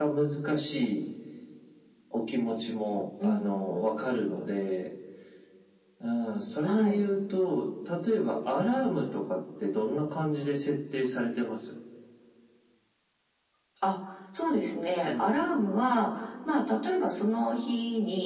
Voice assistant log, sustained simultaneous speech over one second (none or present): none